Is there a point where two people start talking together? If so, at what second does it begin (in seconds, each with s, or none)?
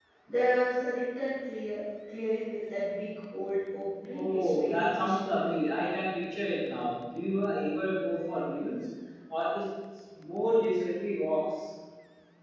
4.0 s